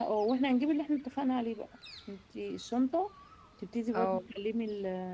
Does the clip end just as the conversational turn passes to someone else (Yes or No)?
No